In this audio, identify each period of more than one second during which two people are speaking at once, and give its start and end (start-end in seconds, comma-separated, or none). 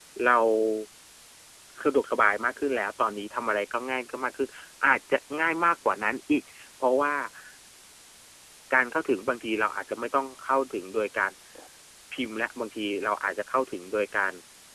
none